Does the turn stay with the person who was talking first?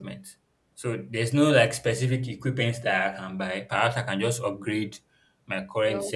Yes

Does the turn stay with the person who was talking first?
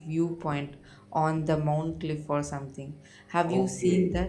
No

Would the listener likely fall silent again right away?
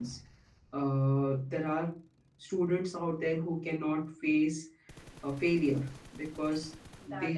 Yes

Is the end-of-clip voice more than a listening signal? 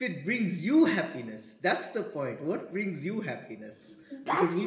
Yes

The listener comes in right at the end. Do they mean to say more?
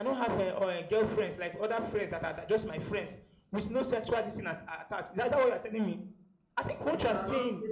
Yes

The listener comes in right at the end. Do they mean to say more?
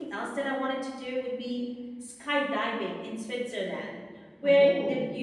No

